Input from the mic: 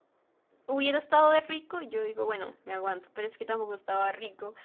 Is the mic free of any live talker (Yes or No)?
No